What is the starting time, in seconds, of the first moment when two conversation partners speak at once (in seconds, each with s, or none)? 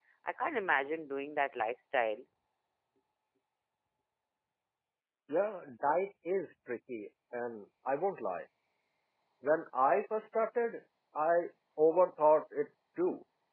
none